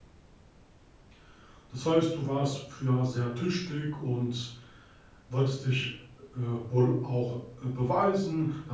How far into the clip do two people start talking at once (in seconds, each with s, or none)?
none